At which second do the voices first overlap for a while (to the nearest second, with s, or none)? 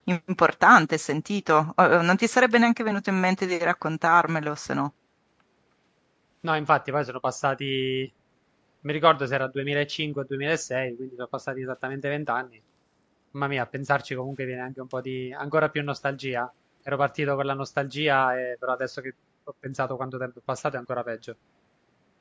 none